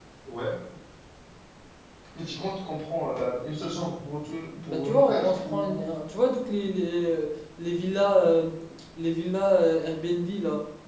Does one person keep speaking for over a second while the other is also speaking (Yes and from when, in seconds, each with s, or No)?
Yes, from 4.6 s